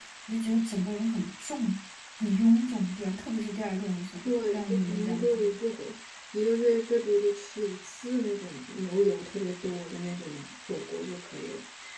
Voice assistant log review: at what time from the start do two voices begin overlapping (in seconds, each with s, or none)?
4.2 s